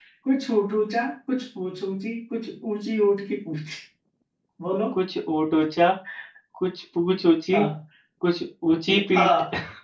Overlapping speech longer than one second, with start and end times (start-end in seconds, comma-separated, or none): none